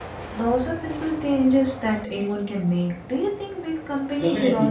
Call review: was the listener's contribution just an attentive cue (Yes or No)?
No